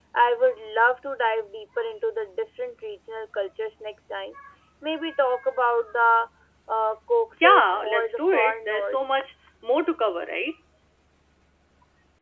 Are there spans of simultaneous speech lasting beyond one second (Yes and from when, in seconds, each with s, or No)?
Yes, from 7.4 s